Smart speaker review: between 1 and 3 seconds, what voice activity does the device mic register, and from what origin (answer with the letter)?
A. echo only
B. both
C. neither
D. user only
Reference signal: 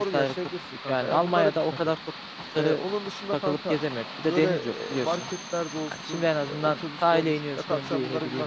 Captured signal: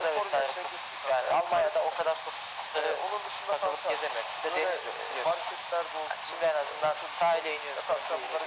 A